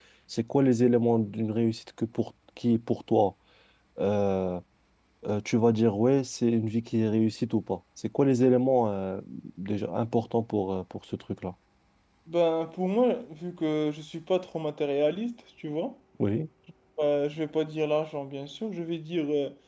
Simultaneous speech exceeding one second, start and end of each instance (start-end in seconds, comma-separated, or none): none